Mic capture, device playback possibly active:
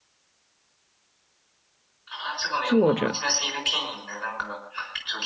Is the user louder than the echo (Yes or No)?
Yes